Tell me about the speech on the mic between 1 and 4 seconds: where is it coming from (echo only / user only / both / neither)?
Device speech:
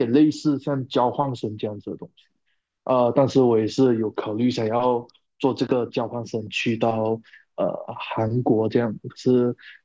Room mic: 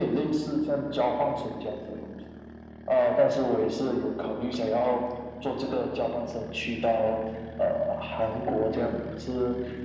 echo only